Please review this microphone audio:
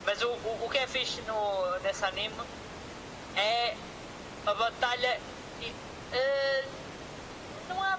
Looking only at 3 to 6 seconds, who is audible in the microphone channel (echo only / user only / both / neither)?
echo only